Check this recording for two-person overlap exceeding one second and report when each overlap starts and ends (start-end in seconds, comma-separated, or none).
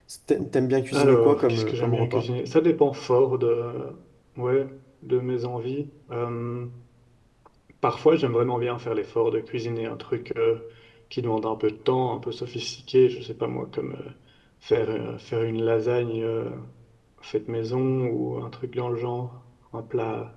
0.9-2.3